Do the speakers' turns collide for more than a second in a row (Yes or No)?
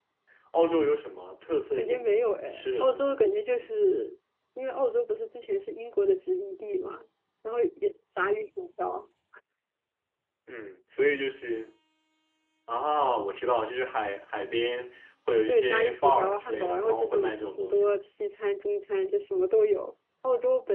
Yes